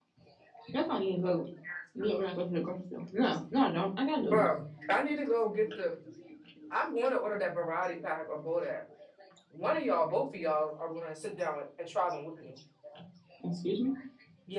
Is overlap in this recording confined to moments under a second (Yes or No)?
Yes